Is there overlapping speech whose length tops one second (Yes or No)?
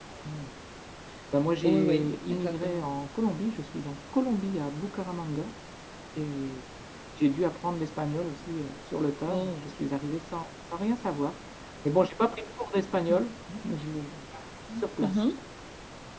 Yes